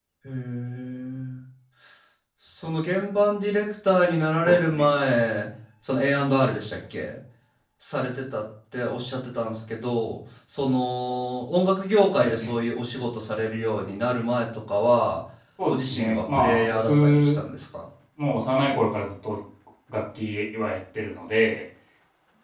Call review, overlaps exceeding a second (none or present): present